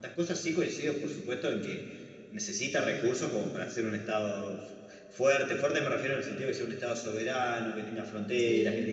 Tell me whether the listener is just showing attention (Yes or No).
Yes